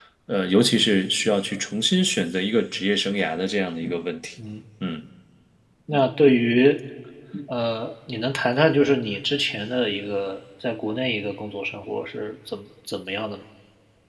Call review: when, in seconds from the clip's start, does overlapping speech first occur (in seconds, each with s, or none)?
none